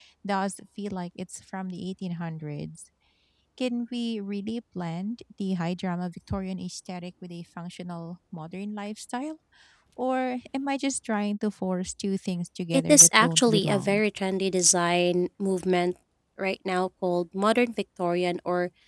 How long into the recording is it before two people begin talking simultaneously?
12.7 s

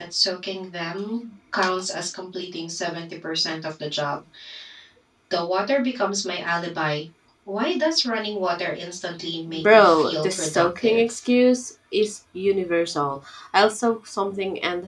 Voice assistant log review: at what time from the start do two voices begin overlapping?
9.5 s

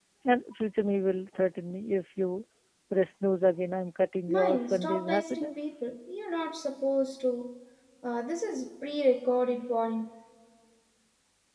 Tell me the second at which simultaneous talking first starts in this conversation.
4.3 s

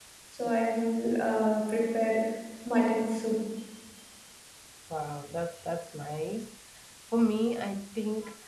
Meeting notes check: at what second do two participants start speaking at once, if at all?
none

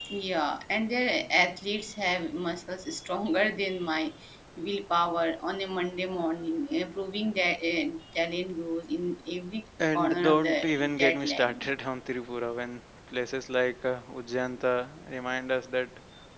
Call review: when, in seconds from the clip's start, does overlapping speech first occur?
9.8 s

